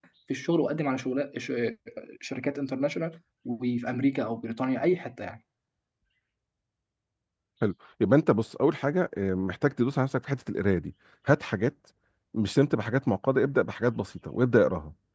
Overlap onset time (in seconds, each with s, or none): none